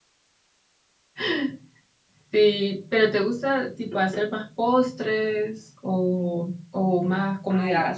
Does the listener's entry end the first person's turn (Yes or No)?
Yes